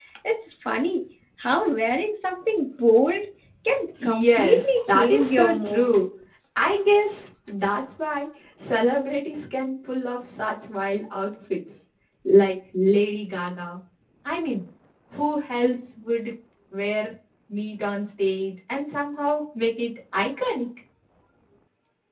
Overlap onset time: 4.0 s

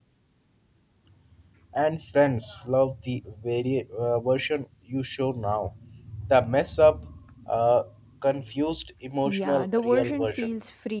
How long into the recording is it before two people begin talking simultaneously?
9.2 s

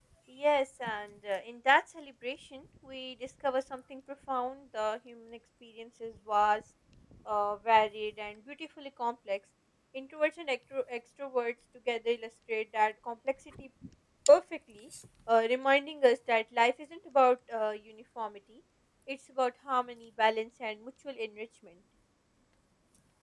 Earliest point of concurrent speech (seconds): none

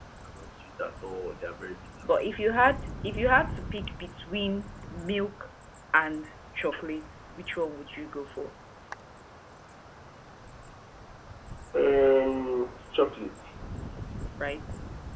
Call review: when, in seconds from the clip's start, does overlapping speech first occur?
none

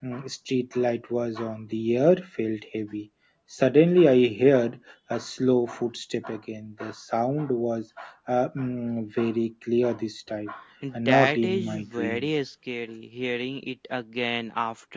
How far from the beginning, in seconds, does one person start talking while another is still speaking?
10.9 s

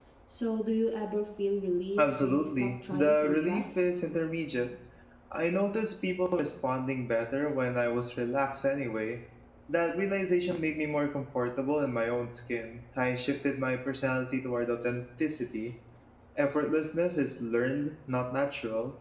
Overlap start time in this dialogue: 2.0 s

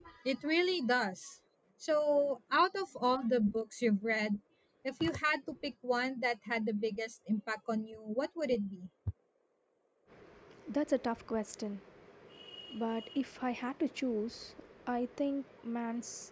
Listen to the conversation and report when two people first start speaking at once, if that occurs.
none

